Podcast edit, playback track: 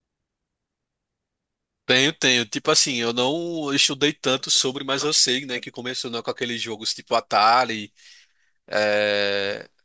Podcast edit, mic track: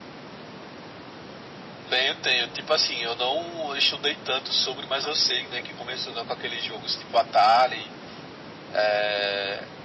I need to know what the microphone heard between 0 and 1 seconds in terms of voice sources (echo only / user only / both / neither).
neither